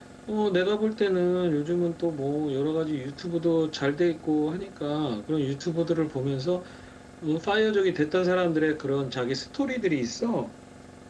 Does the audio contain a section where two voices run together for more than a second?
No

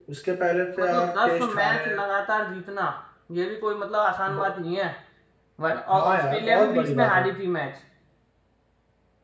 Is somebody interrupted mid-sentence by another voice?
Yes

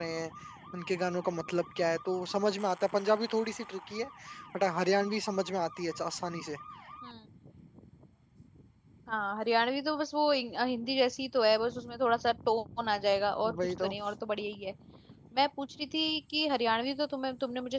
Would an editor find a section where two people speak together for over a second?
No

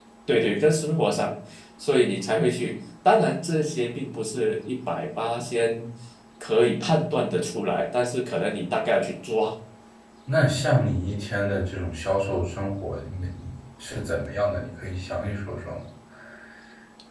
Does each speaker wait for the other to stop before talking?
Yes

